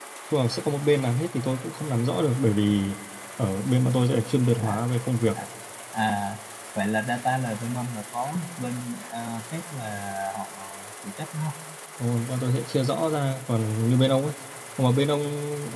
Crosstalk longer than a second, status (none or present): none